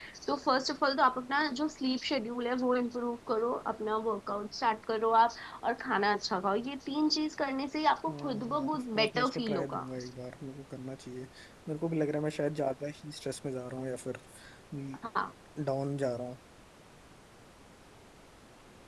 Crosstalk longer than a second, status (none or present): present